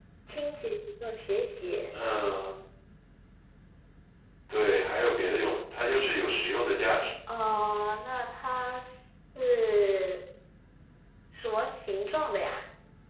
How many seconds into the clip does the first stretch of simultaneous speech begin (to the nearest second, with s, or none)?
none